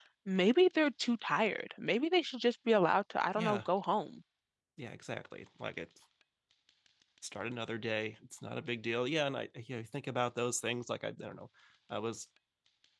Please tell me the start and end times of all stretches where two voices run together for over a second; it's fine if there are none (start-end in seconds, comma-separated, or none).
none